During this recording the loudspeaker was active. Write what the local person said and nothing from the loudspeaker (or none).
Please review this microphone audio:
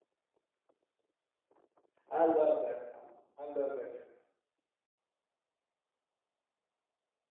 I love that song. I love that song.